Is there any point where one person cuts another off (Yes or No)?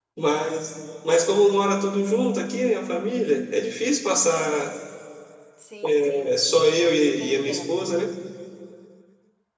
Yes